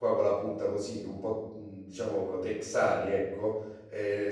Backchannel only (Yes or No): Yes